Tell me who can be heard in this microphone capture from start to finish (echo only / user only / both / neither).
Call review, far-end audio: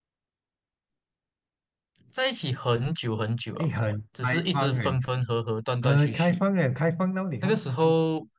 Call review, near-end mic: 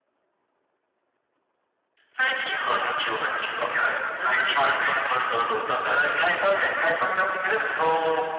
echo only